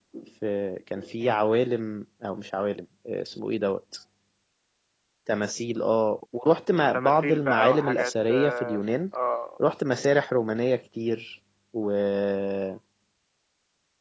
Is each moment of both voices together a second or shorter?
No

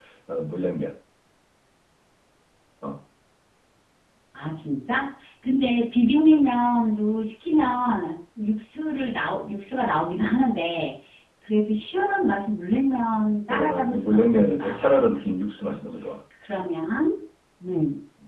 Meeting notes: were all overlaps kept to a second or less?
No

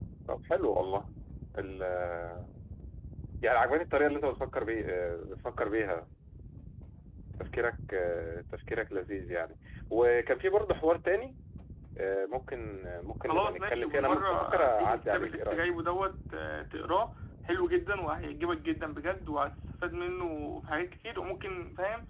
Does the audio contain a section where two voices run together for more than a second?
Yes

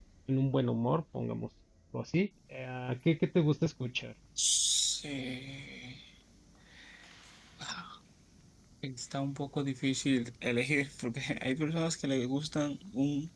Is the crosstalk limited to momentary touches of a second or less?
Yes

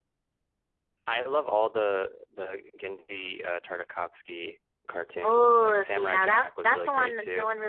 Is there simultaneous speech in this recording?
Yes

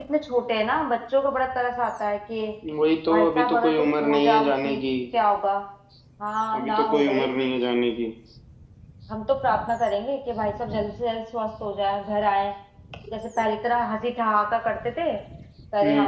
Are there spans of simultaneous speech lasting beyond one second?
Yes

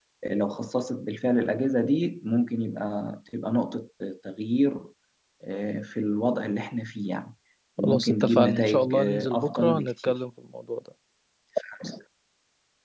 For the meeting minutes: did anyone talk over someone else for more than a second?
Yes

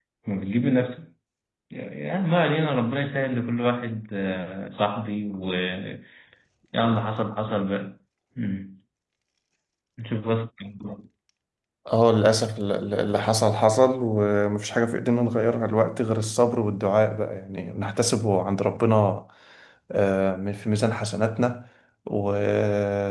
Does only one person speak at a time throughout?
Yes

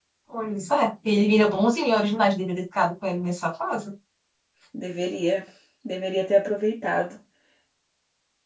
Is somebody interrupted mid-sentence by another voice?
No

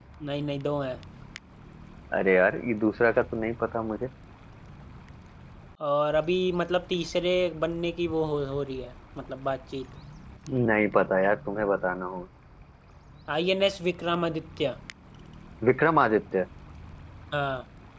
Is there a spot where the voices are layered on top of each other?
No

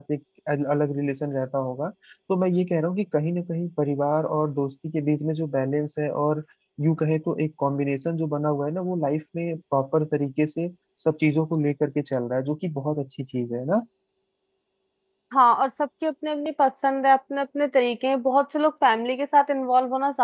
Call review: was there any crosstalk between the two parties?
No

